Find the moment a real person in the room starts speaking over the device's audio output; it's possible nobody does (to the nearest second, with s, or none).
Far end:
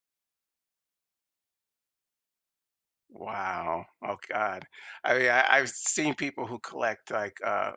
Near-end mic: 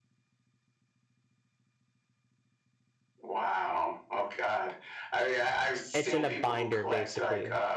6 s